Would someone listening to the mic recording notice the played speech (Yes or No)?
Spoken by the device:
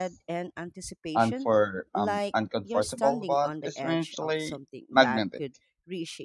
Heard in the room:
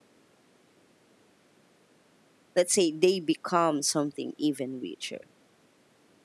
No